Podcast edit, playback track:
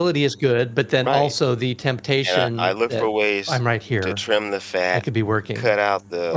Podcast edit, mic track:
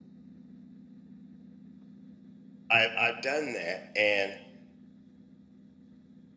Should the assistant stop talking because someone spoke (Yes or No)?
Yes